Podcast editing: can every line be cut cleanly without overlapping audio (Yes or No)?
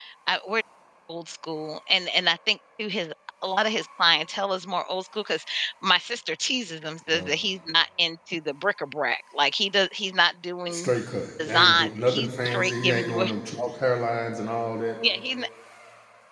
No